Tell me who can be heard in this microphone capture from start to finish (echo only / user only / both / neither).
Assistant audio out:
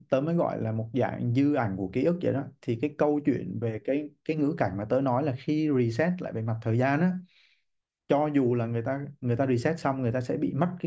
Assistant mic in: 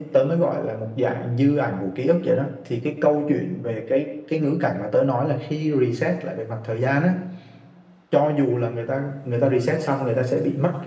echo only